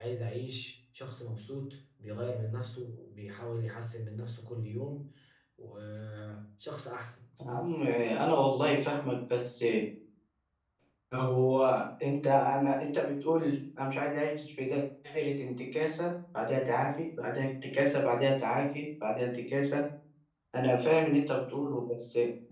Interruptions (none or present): none